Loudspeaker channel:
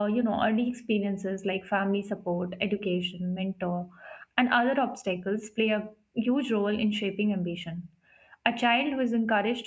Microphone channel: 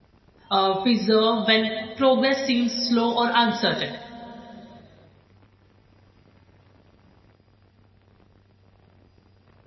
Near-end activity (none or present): present